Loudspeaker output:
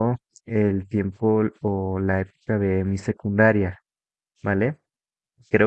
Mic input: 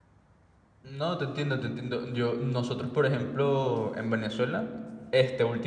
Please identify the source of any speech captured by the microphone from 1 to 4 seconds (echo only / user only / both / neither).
user only